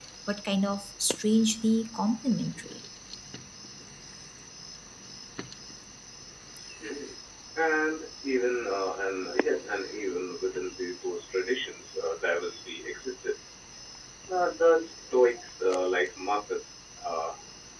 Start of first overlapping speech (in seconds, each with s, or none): none